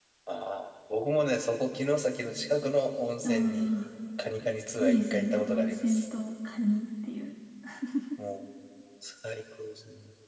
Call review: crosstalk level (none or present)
present